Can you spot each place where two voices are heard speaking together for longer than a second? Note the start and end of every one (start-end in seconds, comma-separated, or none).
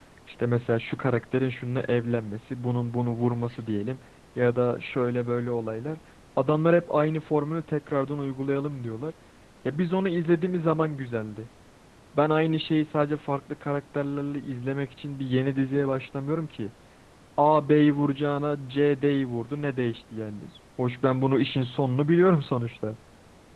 none